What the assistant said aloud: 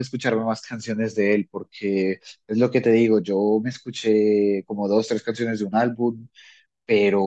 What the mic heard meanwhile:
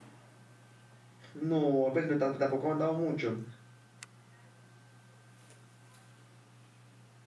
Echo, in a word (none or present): none